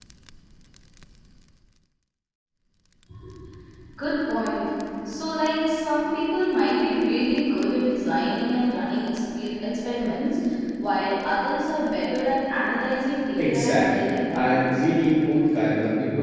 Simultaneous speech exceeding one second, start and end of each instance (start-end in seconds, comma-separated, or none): 13.4-14.8